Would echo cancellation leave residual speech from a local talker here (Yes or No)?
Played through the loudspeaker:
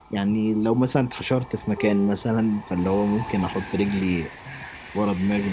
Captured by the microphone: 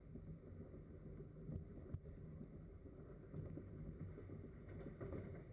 No